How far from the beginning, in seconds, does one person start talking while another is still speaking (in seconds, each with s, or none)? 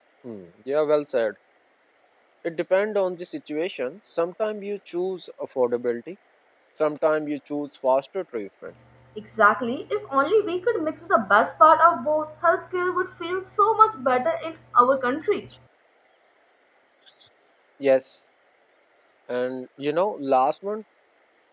none